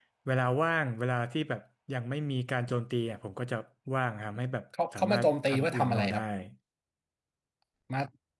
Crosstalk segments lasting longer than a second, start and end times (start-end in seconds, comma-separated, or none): 5.0-6.2